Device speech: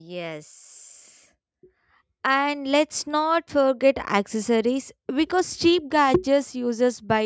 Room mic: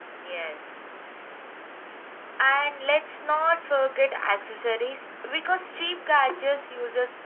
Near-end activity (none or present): none